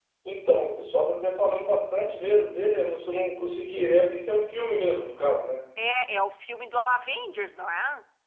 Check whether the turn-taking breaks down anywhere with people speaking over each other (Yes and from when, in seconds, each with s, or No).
No